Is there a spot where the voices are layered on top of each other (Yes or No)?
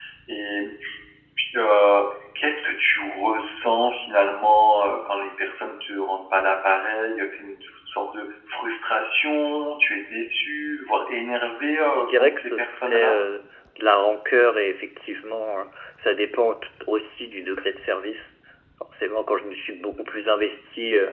Yes